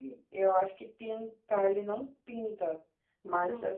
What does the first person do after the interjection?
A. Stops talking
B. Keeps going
B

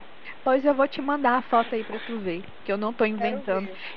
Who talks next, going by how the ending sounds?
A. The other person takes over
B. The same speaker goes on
B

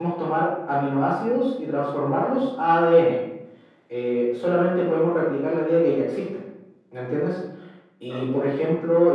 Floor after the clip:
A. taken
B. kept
B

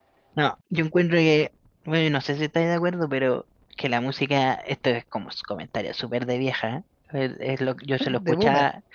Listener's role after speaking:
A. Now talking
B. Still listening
B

